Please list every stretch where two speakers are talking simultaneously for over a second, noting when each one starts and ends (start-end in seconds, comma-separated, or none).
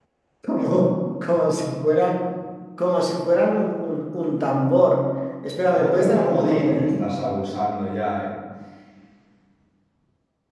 5.7-7.1